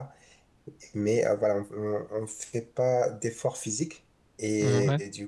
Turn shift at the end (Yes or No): No